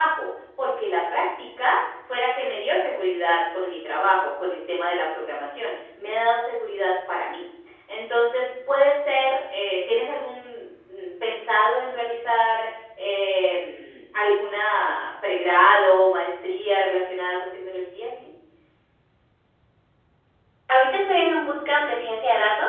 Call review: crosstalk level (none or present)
none